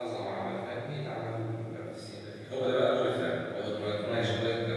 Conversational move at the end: listening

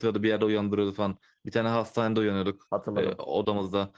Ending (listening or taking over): listening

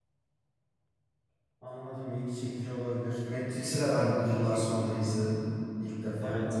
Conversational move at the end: taking over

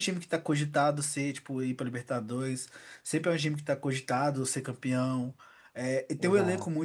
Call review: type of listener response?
listening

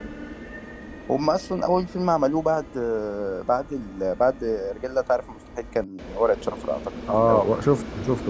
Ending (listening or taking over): taking over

